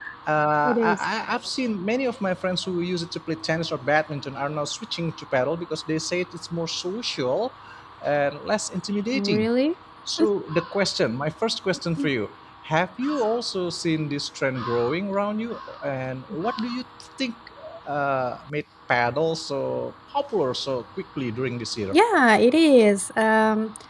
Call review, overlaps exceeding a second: none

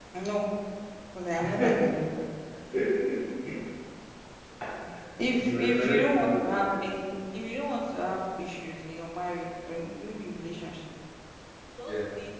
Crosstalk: present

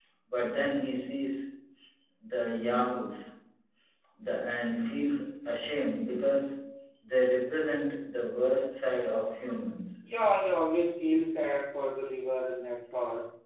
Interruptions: none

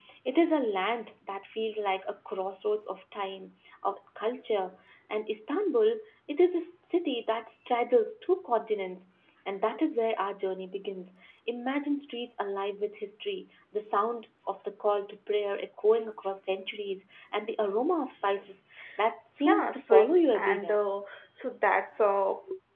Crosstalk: present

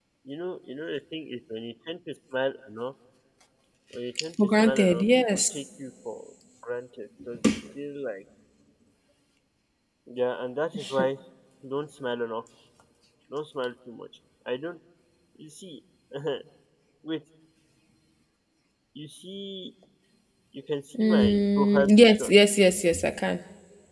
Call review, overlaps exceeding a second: present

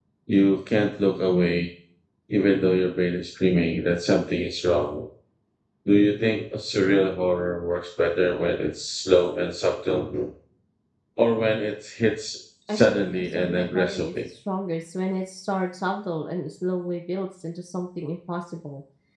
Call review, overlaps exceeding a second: present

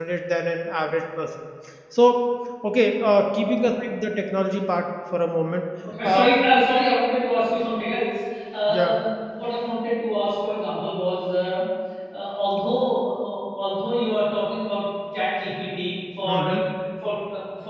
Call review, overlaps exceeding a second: none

